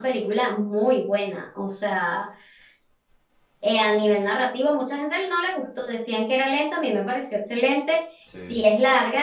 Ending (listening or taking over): listening